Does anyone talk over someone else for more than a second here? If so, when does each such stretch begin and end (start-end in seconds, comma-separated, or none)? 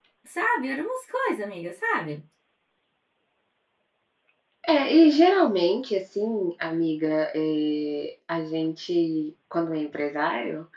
none